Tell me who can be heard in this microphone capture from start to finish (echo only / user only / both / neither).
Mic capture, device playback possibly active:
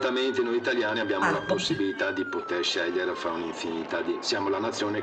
both